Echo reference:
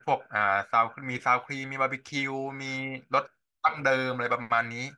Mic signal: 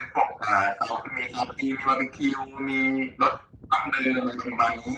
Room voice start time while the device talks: none

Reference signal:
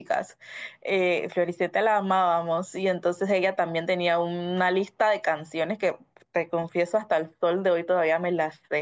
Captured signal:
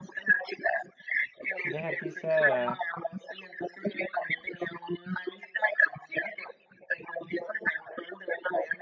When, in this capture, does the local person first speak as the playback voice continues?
1.6 s

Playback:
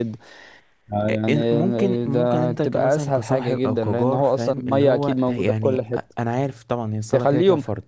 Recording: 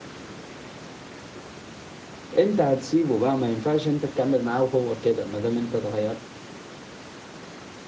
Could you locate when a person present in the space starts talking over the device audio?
2.4 s

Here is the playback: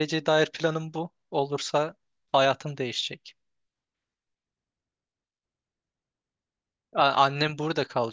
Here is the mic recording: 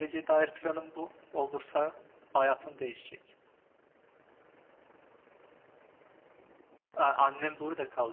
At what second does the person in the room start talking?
none

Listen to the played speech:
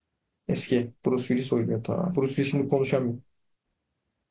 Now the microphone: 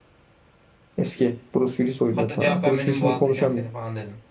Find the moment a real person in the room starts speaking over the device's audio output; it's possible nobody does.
2.1 s

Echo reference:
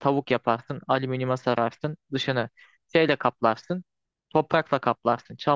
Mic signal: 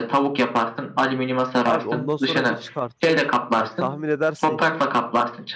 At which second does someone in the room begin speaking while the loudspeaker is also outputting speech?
1.6 s

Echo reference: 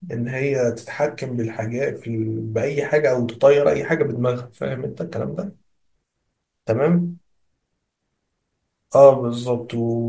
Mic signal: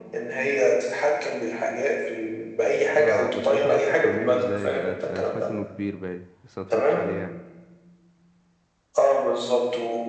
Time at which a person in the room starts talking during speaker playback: 3.0 s

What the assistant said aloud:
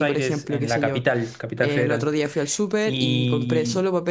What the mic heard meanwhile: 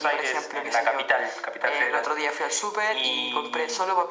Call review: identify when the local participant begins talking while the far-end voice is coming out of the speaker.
none

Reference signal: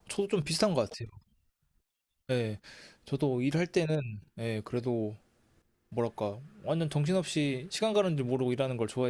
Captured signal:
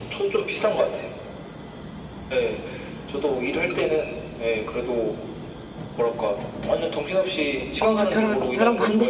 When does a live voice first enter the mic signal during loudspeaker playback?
7.8 s

